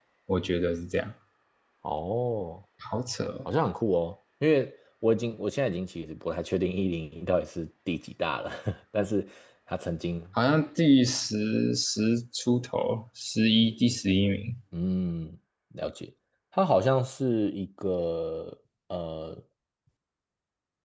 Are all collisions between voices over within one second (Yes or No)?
Yes